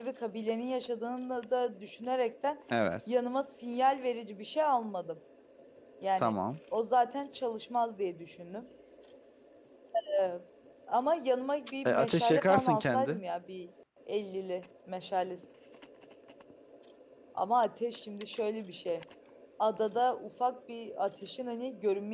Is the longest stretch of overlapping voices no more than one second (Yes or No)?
No